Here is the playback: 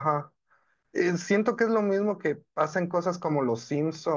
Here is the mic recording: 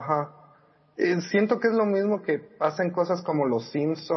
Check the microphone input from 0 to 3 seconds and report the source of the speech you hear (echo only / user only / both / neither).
echo only